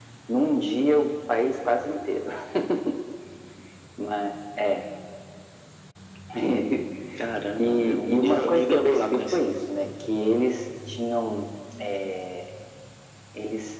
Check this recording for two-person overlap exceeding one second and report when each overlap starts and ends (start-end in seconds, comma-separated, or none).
7.6-9.5